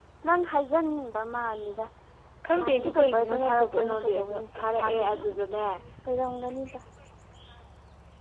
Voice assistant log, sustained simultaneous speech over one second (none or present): present